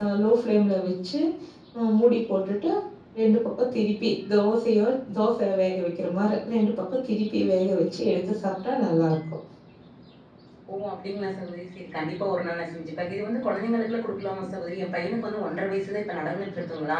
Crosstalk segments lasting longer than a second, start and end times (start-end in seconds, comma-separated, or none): none